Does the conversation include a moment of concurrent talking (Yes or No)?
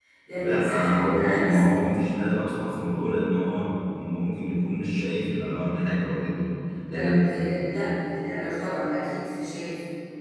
Yes